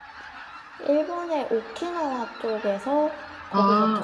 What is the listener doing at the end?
listening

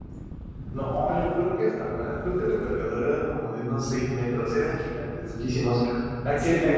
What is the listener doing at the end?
listening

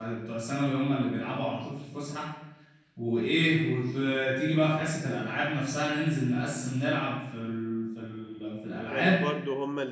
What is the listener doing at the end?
taking over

